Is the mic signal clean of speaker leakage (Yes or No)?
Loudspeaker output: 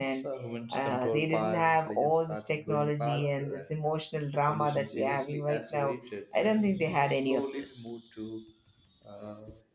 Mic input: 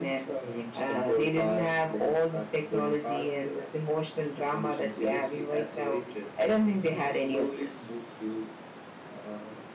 No